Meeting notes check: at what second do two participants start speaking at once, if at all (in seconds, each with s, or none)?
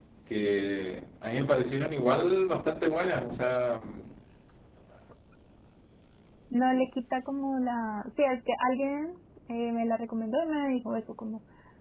none